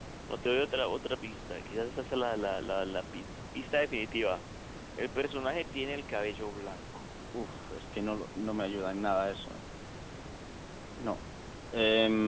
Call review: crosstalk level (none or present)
none